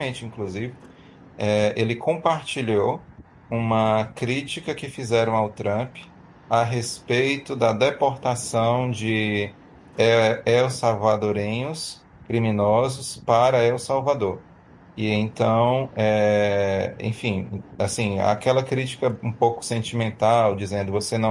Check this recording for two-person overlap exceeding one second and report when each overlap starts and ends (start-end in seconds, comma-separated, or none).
none